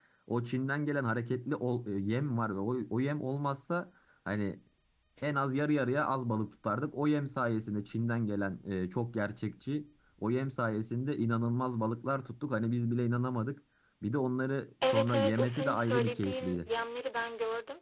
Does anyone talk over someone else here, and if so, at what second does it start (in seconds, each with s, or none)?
14.8 s